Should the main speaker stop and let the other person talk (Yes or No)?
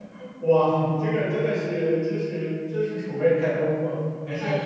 No